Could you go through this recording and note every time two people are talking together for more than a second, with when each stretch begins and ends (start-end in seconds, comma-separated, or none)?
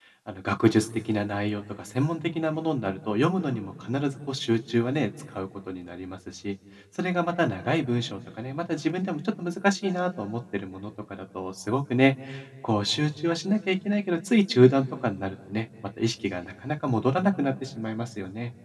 none